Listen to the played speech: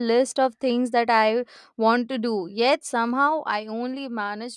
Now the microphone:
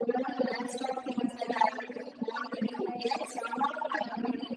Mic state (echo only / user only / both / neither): both